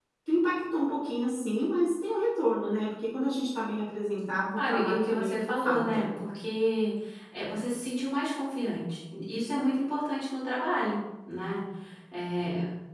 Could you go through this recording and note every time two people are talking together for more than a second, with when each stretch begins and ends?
4.5-6.1

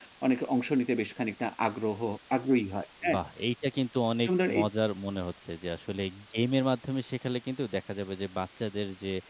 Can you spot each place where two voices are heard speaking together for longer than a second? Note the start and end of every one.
none

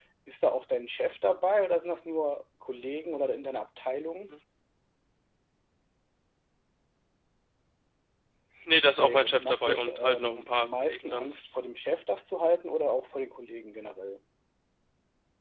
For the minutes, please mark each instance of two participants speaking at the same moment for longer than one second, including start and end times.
8.8-11.3

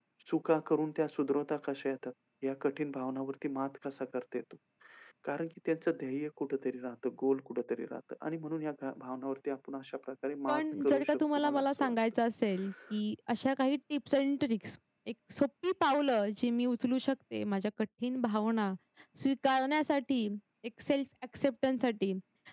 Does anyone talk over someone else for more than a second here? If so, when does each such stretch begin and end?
10.5-11.9

